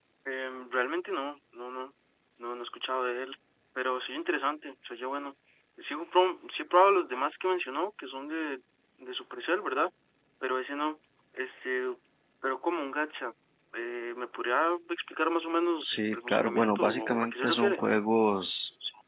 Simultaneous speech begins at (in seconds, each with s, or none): 15.8 s